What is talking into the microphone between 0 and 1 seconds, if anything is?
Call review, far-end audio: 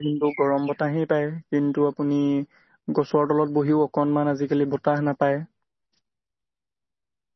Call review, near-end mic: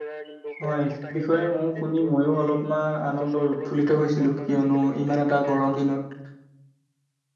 both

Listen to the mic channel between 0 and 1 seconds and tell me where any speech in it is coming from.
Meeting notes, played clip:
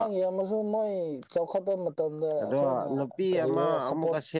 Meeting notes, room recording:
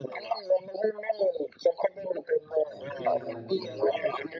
echo only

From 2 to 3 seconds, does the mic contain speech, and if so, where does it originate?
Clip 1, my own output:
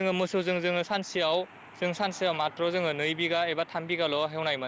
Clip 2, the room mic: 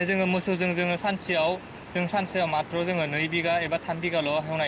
echo only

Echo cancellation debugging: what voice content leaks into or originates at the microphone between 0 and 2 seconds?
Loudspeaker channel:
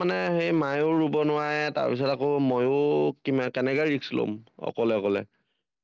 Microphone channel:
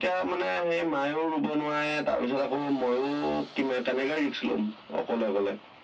echo only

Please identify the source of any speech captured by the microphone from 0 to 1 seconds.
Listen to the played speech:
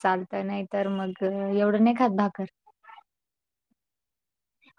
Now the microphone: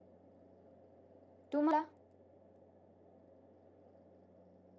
neither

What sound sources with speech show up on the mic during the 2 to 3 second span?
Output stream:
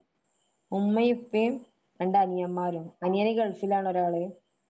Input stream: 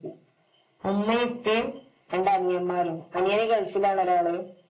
echo only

